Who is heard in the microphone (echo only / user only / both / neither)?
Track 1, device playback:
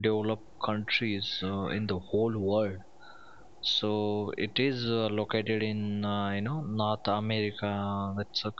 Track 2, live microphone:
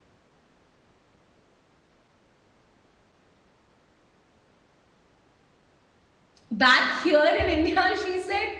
user only